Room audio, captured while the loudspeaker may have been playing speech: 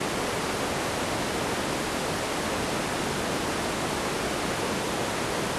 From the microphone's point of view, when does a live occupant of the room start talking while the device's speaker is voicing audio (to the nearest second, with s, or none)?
none